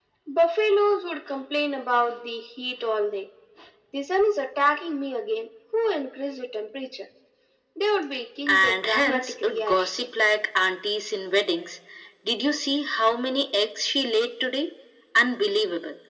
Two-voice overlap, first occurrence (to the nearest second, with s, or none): 8 s